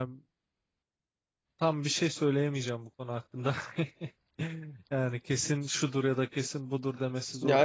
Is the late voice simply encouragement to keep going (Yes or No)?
No